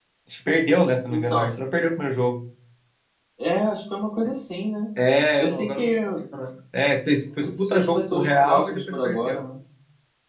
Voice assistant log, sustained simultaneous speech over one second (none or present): present